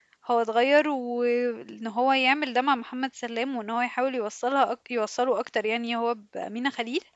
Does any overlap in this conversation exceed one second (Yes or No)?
No